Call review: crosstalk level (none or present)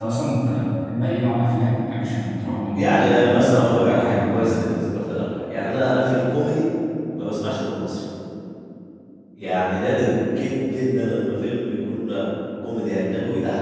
present